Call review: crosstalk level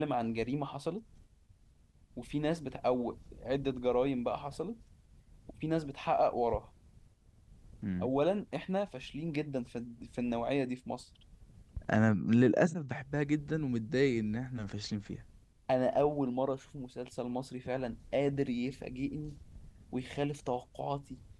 none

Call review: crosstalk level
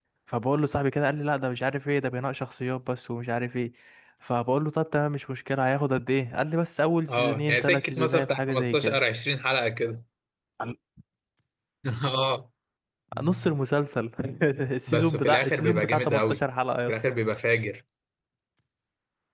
present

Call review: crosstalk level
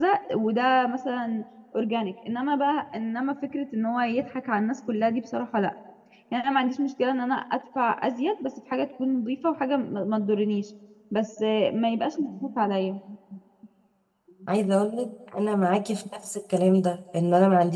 none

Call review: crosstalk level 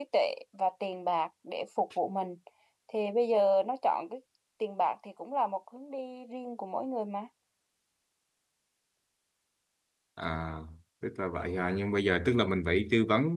none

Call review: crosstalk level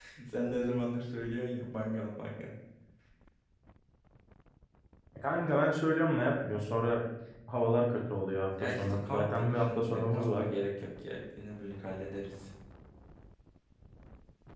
present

